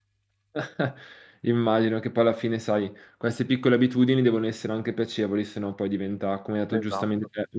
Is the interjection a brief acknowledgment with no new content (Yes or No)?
Yes